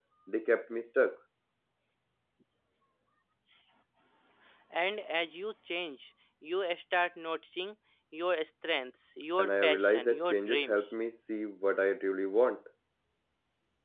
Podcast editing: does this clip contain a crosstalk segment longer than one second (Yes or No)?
Yes